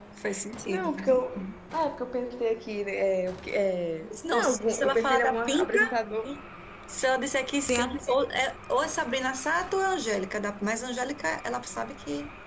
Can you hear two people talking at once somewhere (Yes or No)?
Yes